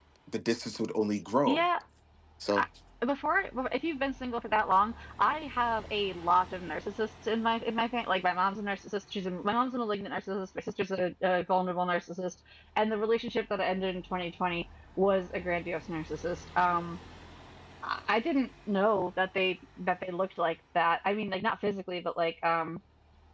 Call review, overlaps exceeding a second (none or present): none